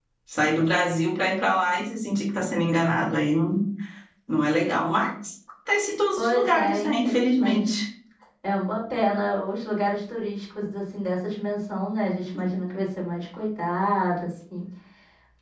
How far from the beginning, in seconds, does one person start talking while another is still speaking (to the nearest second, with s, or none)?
6 s